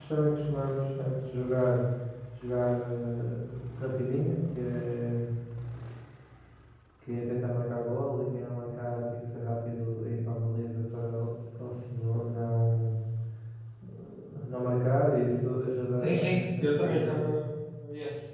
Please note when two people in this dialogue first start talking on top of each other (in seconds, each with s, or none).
16.0 s